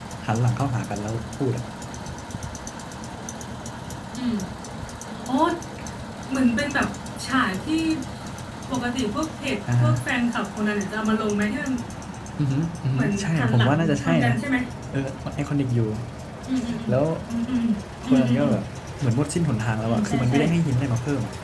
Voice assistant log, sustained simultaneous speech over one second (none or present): present